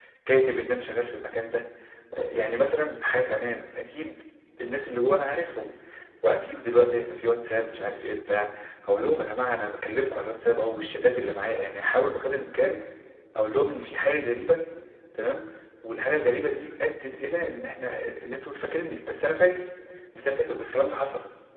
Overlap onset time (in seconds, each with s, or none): none